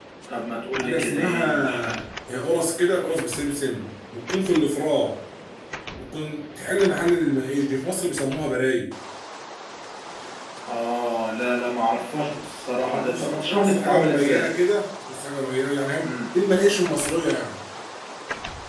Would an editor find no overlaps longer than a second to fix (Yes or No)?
No